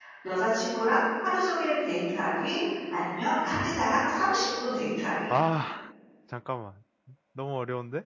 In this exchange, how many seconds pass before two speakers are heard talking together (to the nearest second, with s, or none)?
none